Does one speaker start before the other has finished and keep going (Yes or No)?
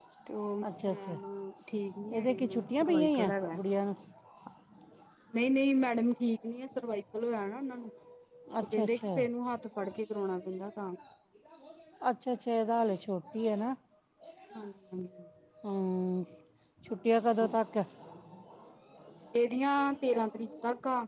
Yes